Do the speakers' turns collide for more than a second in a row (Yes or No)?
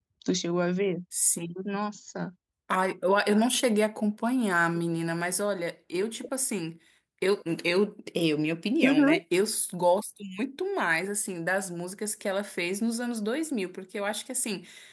No